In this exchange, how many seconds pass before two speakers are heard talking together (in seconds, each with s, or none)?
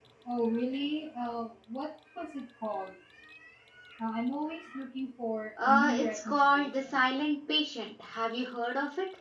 5.6 s